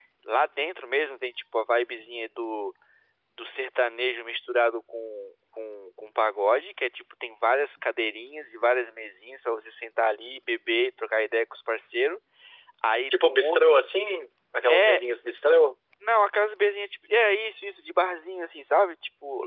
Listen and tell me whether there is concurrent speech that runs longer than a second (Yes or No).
No